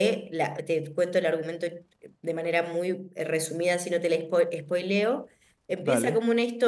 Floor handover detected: No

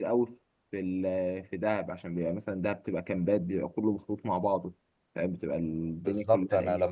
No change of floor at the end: No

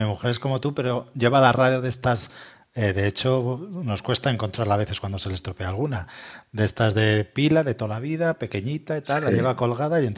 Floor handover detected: No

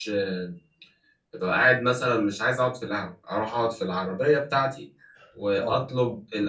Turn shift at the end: No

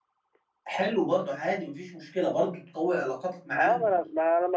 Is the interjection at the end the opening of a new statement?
Yes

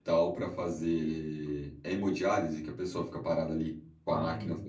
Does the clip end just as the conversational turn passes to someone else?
No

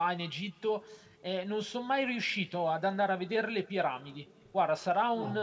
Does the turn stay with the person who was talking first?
Yes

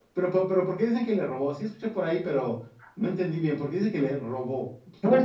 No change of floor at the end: No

